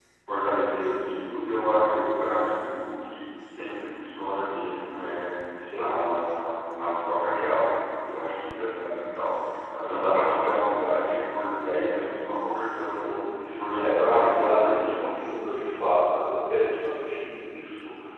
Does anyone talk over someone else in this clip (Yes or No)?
Yes